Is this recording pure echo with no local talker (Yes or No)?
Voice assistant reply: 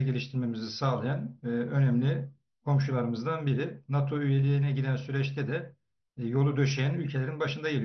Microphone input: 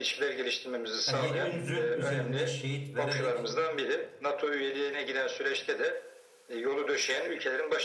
No